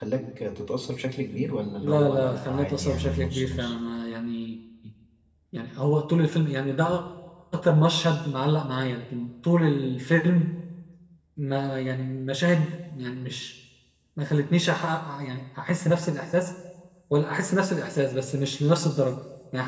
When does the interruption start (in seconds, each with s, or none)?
1.8 s